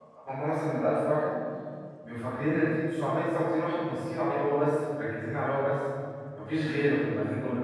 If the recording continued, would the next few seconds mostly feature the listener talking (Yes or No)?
No